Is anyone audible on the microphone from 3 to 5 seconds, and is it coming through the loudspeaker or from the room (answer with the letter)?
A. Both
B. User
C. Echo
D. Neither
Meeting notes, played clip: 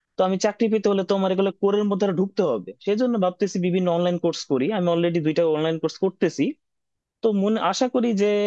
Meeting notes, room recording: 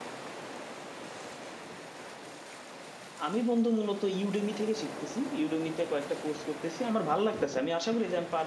B